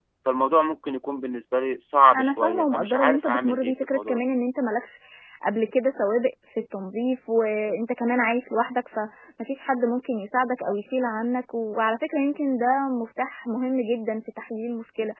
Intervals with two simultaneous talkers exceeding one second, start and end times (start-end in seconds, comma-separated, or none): 2.1-4.2